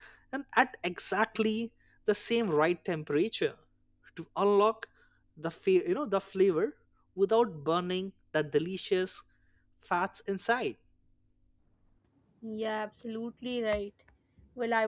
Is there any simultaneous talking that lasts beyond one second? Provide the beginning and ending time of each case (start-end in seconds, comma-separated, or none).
none